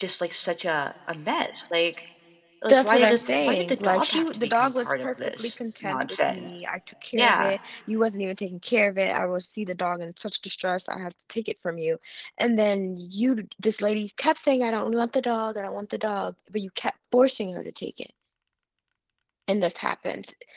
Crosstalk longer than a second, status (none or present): present